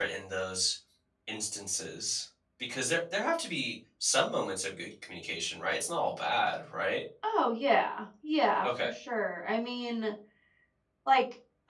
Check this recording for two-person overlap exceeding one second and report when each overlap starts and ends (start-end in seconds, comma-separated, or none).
none